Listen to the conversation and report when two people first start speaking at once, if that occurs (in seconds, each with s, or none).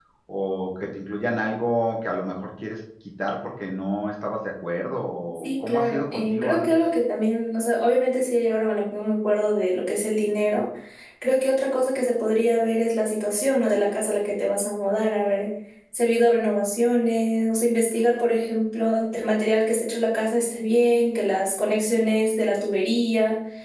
5.4 s